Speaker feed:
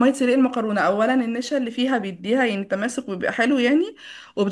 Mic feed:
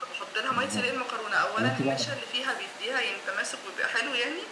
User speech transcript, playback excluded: بالظبط طب انت بقى

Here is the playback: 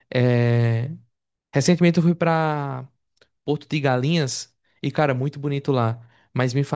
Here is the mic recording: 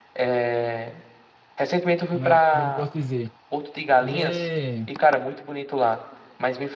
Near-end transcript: Como é, como é que eu posso dizer? Ele é

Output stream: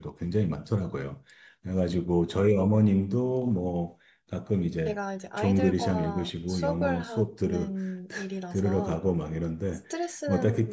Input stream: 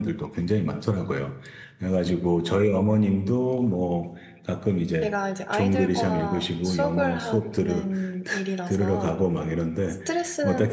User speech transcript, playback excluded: none

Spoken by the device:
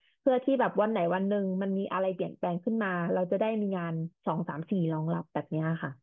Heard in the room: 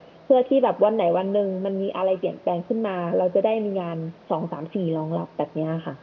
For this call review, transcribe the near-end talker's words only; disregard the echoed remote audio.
none

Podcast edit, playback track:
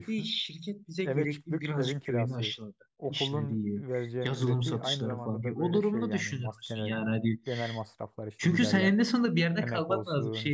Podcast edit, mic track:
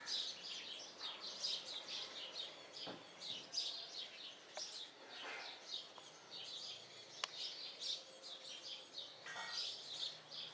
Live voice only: none

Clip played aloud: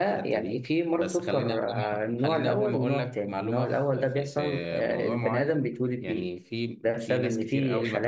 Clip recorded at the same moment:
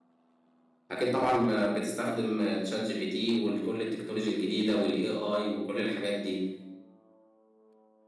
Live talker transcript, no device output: اكيد طبعا ما بتستخدم تشات جي بي تي وكل التكنولوجيا الجديده والاي اي وكل الحاجات دي

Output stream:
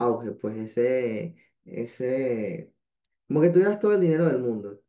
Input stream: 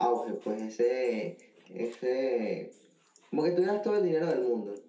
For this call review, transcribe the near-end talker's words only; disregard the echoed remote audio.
none

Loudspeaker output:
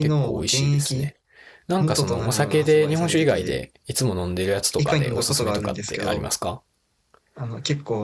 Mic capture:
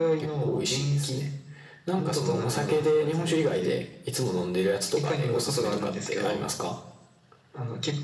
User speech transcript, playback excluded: none

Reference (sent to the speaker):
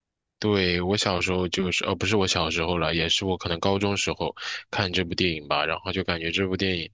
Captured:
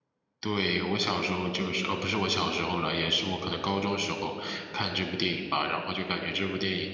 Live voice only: none

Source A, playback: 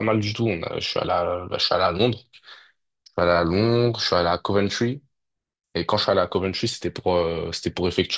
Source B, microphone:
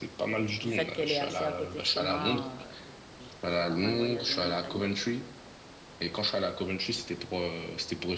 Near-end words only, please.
Du fait qu'elle est assez à côté de chez moi, euh, j'ai j'ai pas mal voyagé en Italie.

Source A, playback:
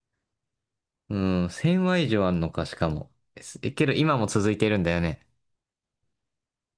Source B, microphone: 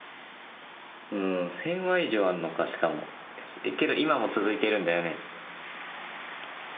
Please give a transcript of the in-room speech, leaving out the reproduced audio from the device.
none

